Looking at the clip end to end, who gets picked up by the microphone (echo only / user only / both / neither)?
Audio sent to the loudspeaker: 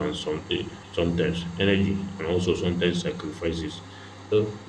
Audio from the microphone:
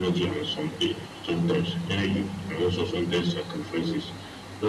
echo only